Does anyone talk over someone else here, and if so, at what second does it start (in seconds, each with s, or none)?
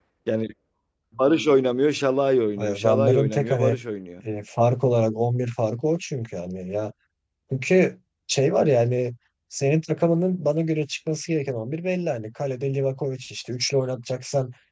2.6 s